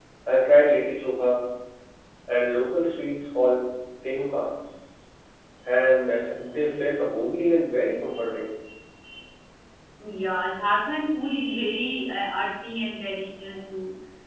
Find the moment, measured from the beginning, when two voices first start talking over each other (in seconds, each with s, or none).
none